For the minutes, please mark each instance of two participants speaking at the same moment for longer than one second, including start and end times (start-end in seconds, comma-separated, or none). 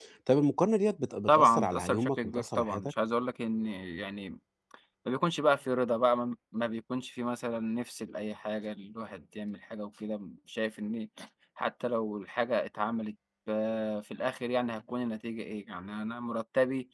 1.3-2.9